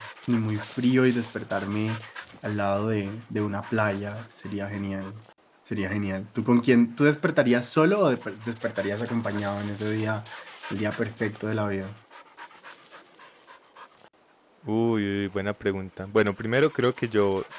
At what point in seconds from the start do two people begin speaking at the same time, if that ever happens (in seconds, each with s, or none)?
none